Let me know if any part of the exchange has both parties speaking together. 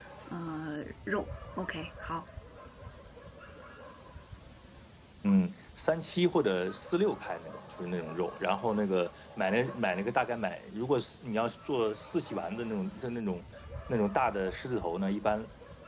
No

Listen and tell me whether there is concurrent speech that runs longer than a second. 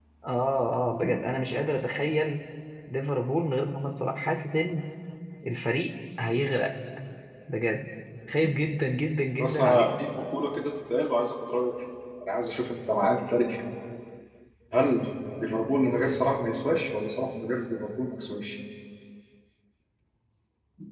No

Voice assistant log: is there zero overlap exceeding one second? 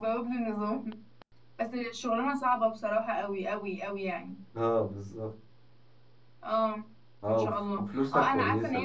No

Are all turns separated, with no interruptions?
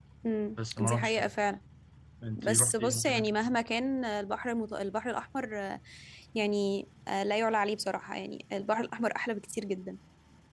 No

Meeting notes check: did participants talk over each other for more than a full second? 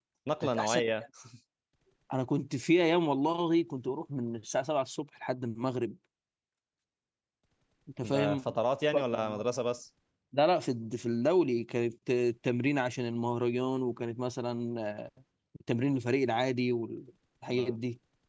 No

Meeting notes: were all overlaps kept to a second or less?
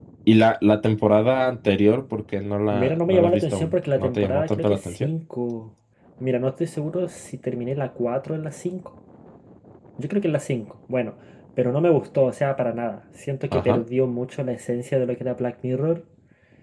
No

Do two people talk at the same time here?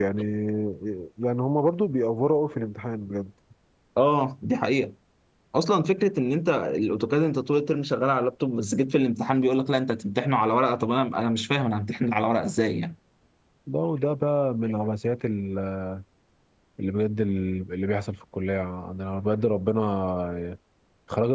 No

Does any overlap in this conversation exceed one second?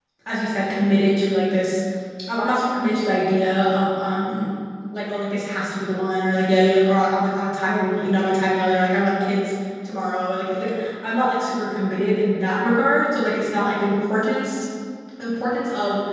No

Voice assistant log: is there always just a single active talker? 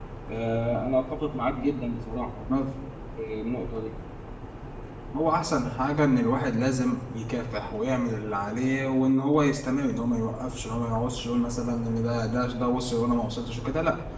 Yes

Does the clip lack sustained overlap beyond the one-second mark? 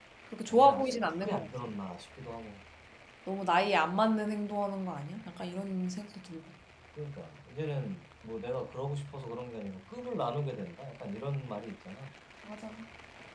No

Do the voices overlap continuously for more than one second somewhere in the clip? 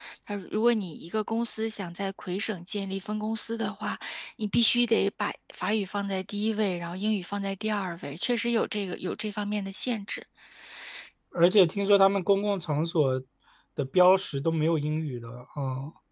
No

